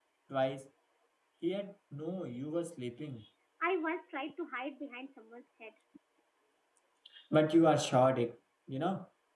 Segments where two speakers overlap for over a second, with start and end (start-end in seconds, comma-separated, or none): none